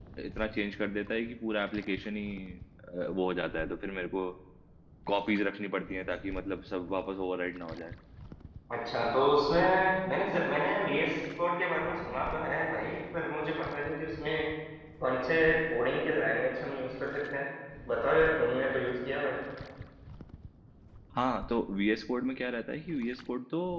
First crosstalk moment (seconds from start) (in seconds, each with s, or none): none